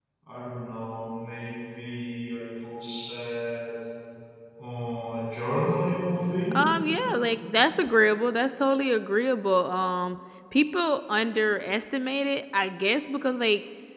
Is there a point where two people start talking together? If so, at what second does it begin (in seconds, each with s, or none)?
none